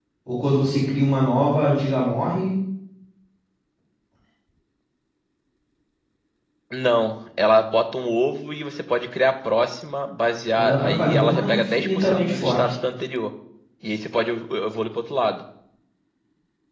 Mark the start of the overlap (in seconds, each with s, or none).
10.6 s